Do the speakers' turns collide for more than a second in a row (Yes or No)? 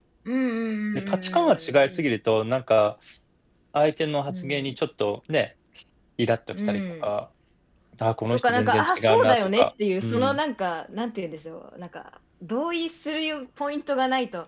Yes